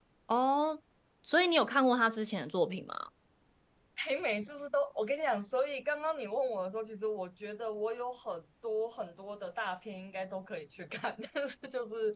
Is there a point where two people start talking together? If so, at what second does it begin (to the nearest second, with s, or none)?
none